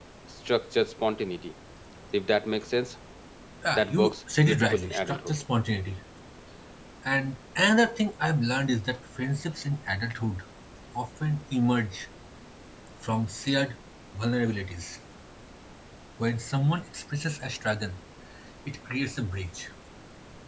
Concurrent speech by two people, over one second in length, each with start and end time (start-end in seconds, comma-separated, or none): 3.7-5.3